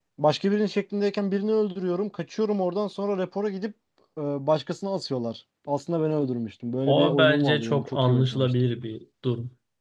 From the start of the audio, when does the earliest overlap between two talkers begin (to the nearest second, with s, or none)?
7 s